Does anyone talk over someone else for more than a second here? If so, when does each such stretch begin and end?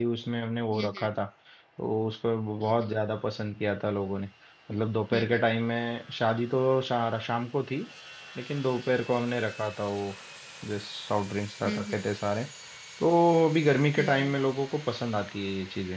none

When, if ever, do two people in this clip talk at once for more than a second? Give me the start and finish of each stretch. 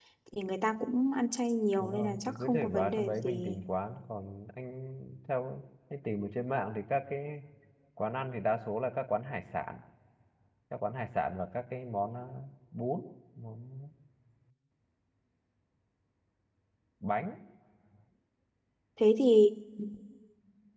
1.8-3.6

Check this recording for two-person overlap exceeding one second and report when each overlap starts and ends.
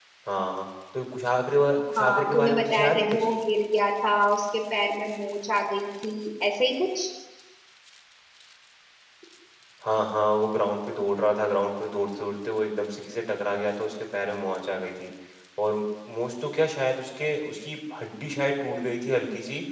2.0-3.3

